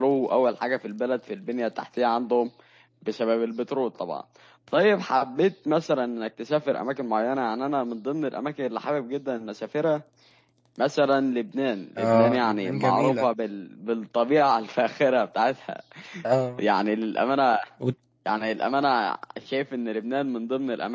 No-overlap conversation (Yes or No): No